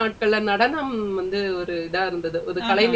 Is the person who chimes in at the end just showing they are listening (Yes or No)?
Yes